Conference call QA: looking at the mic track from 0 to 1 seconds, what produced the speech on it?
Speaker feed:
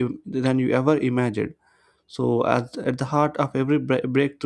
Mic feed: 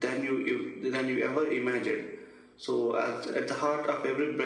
echo only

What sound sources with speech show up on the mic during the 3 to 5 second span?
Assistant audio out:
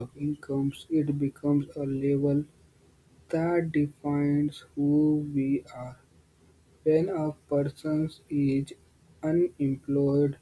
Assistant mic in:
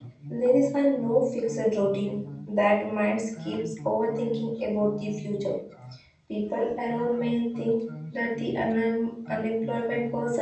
both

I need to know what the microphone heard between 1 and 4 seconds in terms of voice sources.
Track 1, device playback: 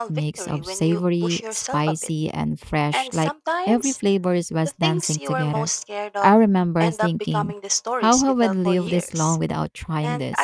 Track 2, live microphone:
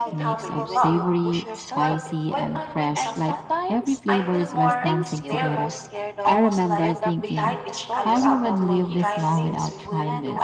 both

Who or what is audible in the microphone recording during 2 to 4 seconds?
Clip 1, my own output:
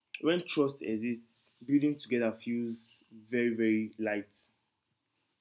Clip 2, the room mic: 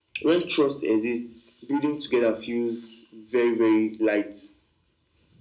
echo only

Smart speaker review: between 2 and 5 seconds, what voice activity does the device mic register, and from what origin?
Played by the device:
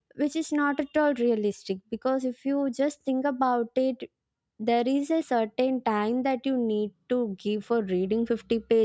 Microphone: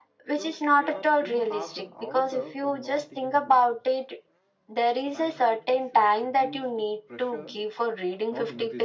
both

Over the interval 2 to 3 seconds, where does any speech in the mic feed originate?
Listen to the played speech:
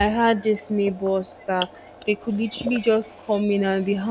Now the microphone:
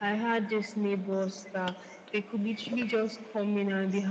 echo only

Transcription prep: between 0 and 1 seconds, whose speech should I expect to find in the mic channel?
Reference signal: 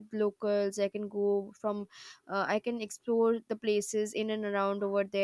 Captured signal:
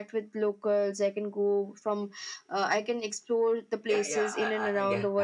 echo only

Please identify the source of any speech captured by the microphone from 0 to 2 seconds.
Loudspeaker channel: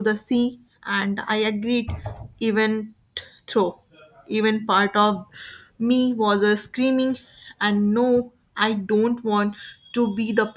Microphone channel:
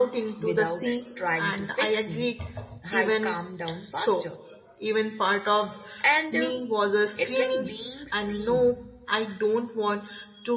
both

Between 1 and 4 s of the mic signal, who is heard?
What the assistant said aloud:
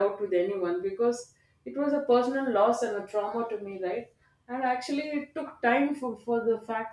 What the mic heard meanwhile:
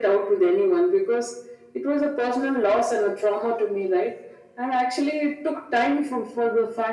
echo only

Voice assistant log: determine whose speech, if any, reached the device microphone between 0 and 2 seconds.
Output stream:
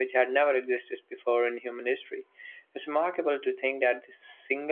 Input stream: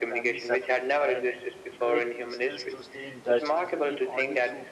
both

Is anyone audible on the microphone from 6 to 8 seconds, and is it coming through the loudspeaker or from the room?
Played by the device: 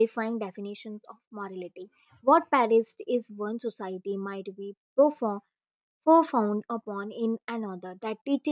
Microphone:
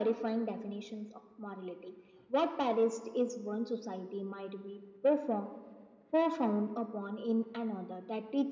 echo only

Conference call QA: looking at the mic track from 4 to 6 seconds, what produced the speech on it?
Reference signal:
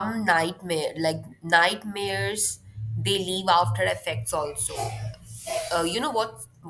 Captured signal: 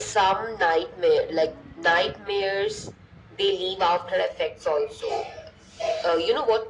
echo only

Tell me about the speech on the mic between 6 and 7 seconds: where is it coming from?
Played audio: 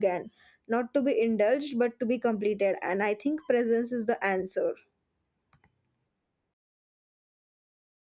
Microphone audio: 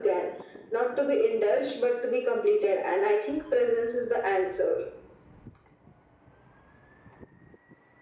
neither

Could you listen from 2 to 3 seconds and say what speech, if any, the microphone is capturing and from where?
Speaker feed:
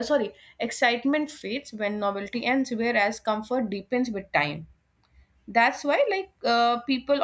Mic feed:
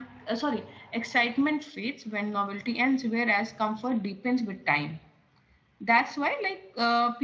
echo only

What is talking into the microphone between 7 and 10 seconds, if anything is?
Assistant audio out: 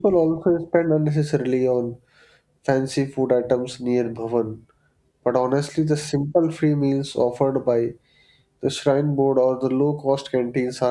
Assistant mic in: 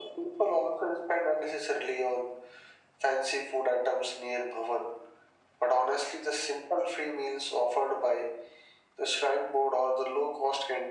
echo only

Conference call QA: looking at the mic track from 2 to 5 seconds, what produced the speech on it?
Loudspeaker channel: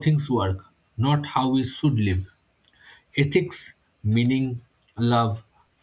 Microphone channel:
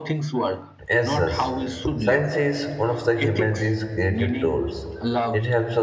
both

